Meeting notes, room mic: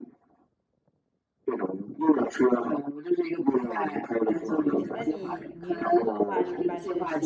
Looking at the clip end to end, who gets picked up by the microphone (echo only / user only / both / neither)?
both